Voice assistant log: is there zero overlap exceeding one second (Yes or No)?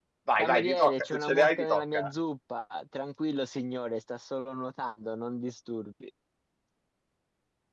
No